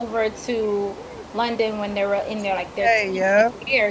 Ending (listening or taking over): listening